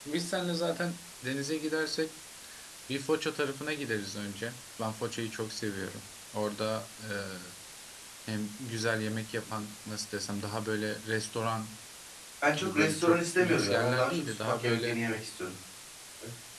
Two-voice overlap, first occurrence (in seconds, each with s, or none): 12.5 s